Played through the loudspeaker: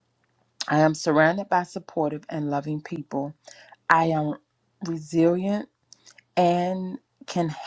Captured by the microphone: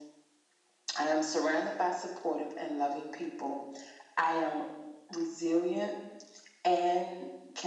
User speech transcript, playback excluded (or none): none